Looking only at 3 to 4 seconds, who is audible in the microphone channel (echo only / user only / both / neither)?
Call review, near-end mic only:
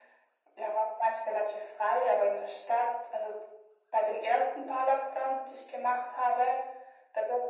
echo only